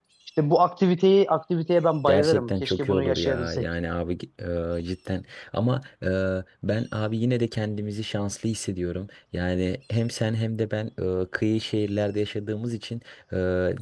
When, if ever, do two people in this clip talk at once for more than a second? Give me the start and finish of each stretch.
2.1-3.6

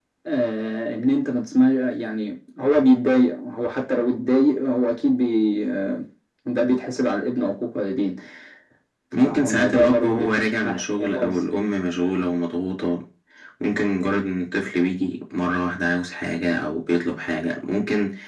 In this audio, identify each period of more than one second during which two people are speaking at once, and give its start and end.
9.2-11.3

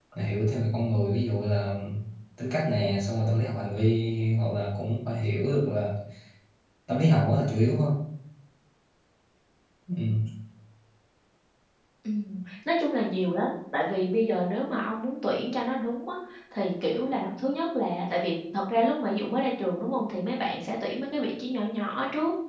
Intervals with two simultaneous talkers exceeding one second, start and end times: none

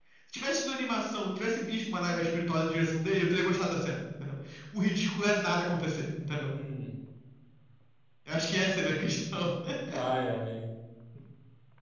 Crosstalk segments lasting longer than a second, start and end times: none

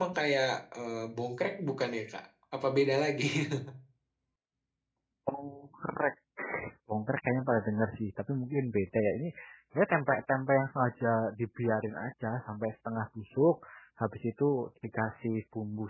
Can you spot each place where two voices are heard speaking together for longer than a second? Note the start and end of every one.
none

